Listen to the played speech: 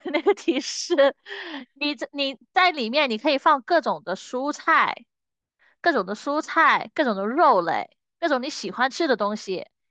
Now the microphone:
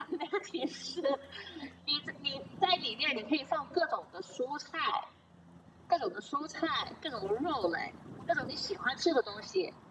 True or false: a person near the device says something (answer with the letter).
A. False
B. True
A